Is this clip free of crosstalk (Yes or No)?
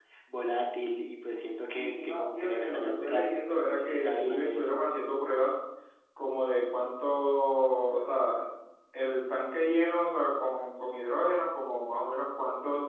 No